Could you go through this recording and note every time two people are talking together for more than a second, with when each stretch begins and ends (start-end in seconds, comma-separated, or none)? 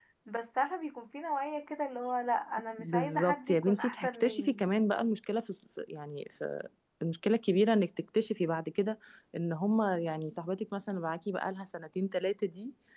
2.8-4.6